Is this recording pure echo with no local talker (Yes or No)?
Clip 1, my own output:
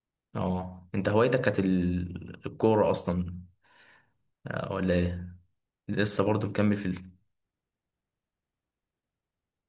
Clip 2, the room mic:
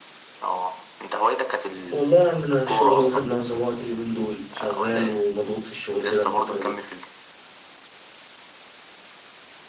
No